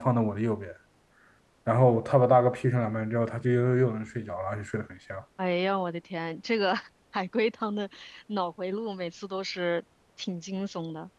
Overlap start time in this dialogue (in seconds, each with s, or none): none